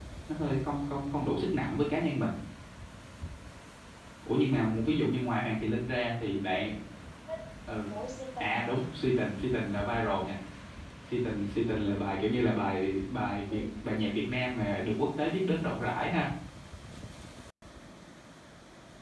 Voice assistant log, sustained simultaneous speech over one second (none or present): none